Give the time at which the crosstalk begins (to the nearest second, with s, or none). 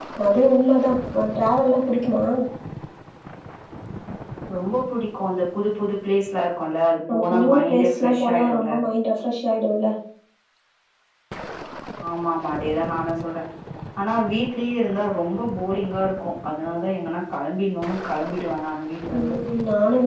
7 s